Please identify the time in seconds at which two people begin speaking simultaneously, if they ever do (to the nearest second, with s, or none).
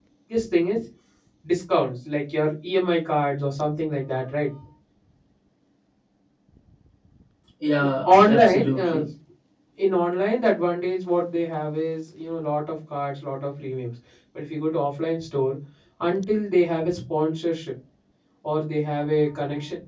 8 s